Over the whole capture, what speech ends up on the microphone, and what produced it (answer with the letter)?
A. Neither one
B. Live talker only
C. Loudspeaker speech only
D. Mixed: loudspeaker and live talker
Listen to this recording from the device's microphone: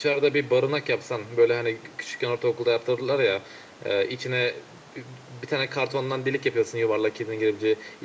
B